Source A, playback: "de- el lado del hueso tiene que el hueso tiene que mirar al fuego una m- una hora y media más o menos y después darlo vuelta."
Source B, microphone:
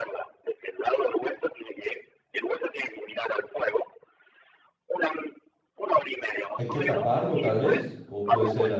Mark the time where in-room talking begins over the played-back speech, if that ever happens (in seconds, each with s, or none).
6.6 s